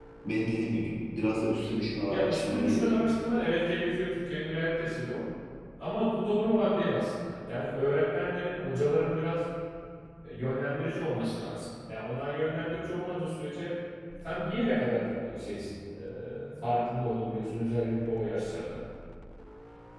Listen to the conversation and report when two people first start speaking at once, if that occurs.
2.0 s

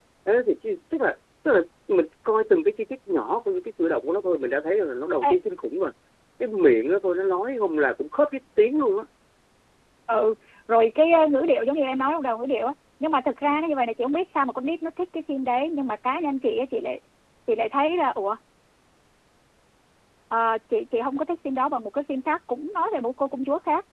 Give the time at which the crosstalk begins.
none

